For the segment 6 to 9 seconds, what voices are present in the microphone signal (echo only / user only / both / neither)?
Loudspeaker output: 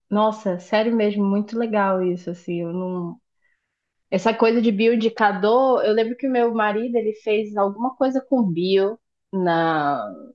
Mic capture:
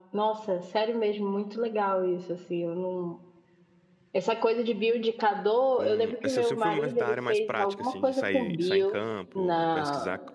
both